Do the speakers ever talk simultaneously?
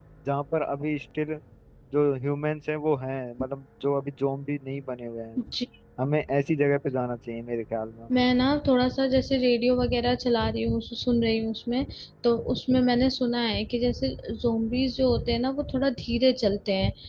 No

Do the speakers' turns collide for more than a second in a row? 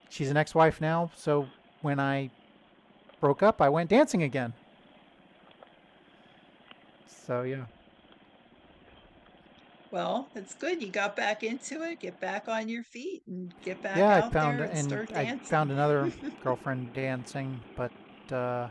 Yes, from 13.9 s

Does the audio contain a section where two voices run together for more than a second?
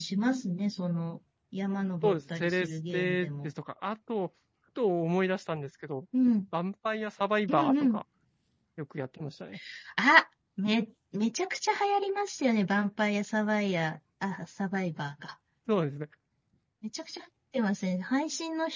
Yes, from 2.0 s

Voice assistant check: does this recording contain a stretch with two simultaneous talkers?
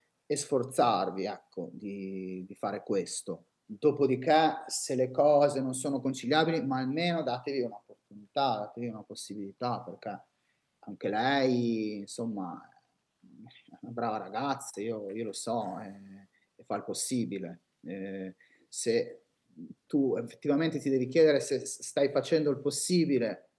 No

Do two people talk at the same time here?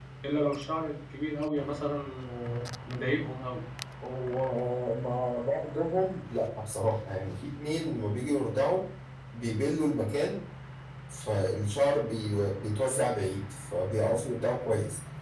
No

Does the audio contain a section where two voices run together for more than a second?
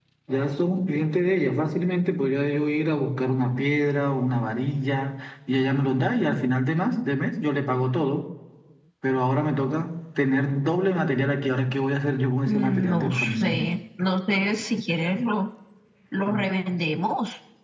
Yes, from 12.5 s

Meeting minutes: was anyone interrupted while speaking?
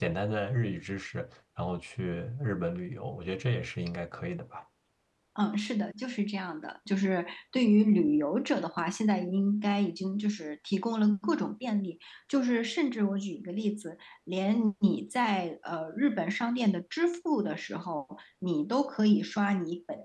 No

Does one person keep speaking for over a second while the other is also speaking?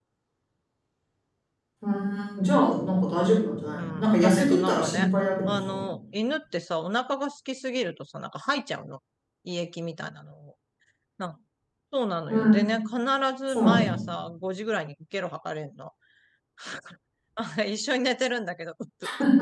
Yes, from 3.7 s

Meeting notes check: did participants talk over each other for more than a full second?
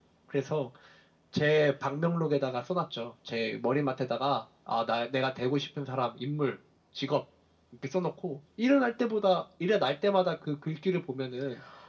No

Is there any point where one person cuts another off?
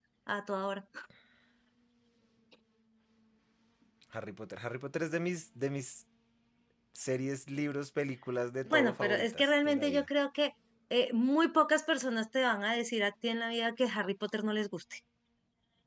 Yes, from 8.7 s

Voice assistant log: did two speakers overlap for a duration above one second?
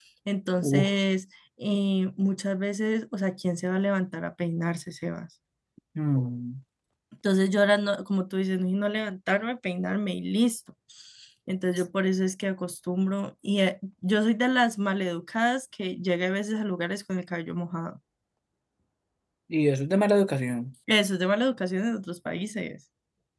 No

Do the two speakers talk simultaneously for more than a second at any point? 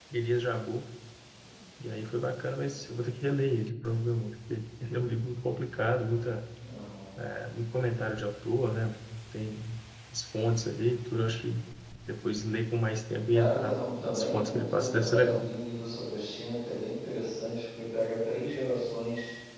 Yes, from 13.3 s

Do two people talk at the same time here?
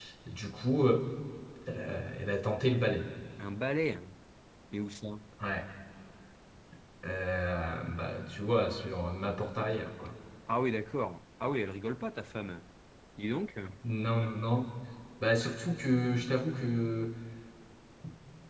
No

